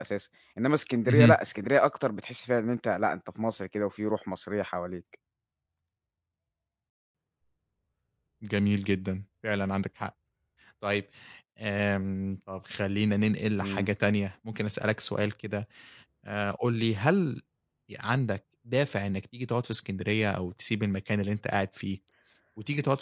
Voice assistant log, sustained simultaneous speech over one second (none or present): none